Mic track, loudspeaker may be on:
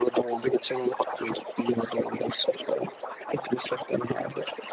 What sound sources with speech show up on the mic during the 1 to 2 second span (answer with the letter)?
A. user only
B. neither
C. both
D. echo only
D